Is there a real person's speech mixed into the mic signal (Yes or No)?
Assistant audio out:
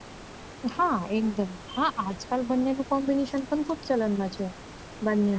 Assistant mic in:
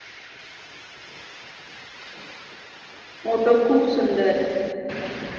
Yes